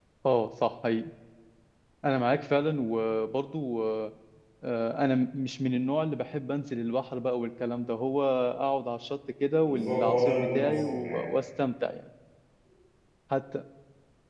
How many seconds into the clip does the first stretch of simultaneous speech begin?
9.6 s

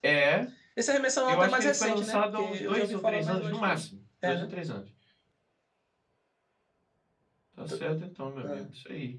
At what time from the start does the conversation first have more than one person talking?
1.3 s

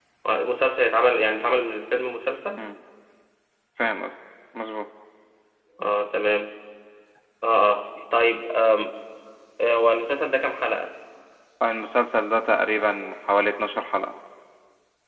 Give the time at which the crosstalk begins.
none

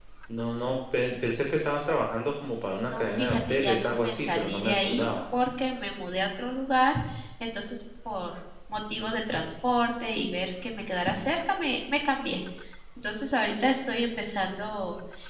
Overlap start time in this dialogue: 2.9 s

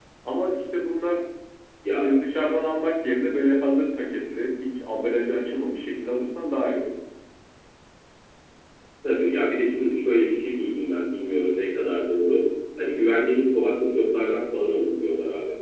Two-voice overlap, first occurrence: none

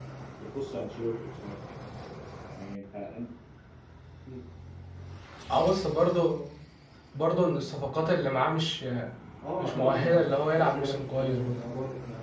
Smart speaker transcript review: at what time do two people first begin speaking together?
9.6 s

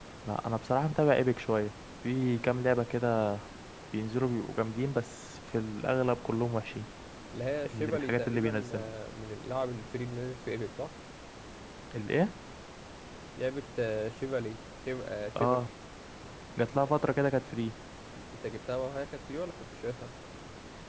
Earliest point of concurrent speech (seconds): 7.7 s

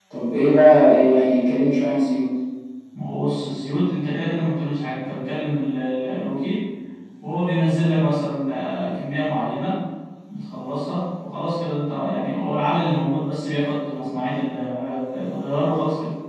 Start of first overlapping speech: none

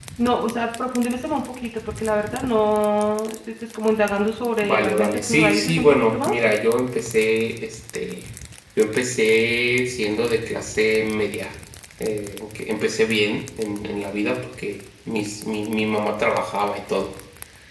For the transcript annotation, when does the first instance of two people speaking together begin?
4.6 s

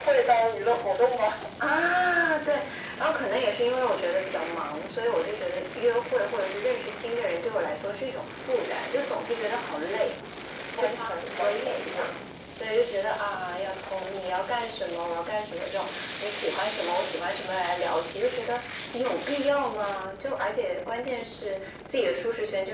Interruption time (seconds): 10.8 s

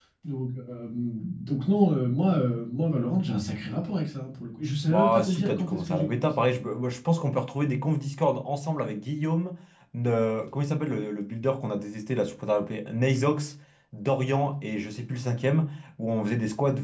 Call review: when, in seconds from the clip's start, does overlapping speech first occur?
4.8 s

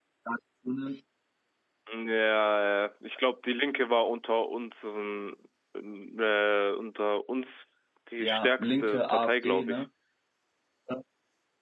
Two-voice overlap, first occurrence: 8.2 s

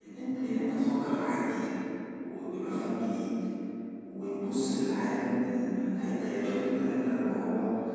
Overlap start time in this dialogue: none

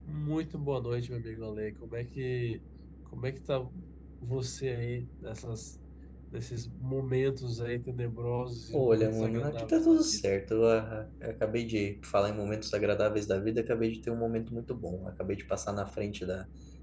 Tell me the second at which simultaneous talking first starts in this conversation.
8.7 s

